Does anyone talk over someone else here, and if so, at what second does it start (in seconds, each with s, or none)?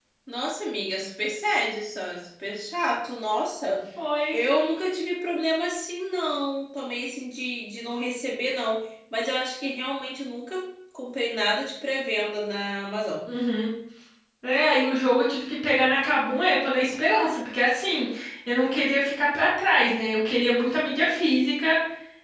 none